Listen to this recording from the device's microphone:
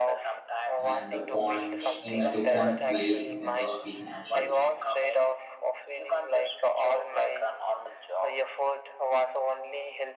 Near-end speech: present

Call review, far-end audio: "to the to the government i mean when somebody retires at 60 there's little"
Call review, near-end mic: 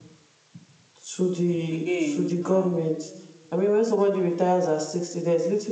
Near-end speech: present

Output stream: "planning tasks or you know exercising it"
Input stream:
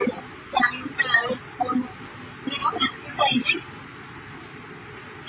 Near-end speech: none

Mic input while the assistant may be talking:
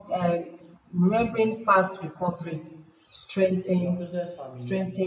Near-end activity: present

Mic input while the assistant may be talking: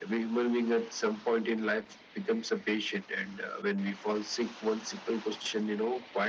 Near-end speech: none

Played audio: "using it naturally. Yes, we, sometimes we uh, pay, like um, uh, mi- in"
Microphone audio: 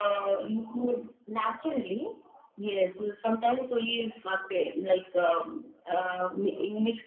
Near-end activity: none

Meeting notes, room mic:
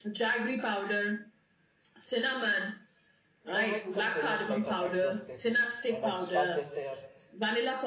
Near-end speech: present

